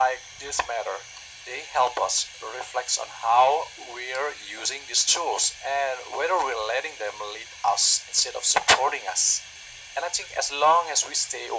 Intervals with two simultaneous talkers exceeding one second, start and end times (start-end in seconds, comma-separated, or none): none